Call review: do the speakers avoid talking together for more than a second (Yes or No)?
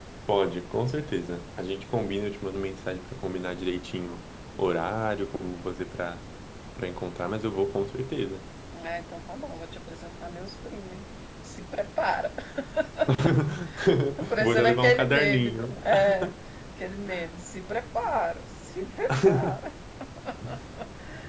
No